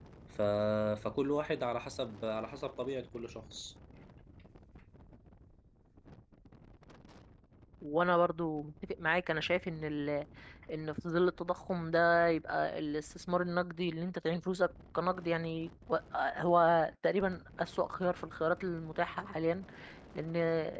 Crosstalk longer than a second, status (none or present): none